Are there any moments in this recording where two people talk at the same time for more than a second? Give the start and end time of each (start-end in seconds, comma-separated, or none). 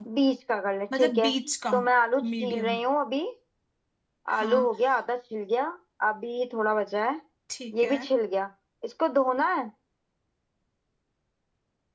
none